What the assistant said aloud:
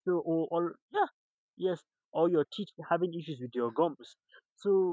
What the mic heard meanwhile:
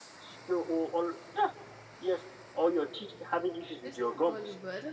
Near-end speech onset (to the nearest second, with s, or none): 4 s